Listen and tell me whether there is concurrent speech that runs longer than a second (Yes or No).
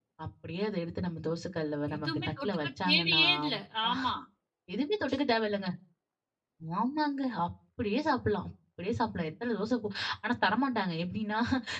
Yes